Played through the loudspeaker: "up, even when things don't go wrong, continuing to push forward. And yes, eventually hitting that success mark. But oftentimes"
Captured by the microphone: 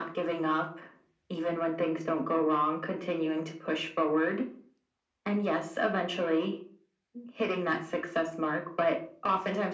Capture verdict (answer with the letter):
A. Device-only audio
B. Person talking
A